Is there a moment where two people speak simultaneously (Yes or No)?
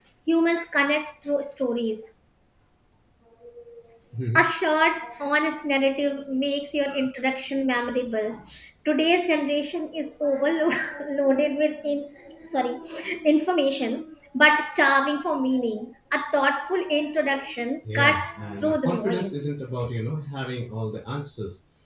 Yes